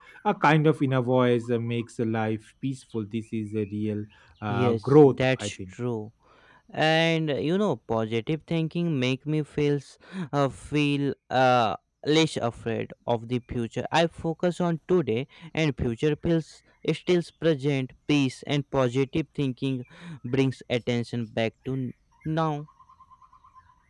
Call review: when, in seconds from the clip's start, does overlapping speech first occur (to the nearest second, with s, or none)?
4 s